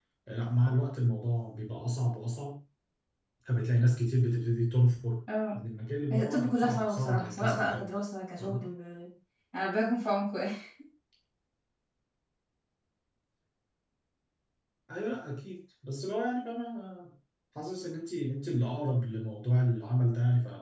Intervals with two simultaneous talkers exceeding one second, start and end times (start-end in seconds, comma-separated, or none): 6.1-7.9